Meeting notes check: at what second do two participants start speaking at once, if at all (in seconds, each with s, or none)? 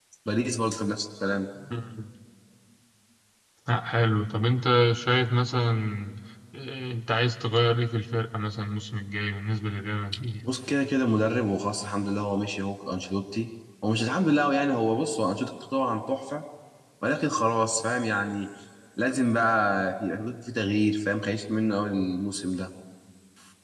none